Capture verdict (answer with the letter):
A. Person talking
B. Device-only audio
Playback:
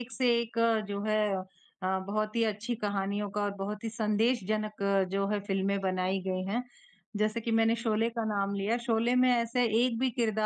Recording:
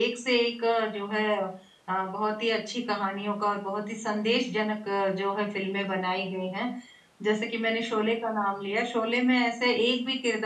B